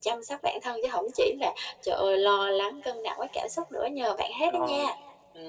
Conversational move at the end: taking over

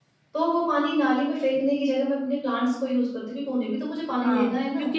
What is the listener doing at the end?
taking over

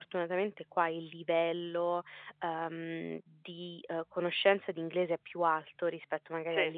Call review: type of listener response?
listening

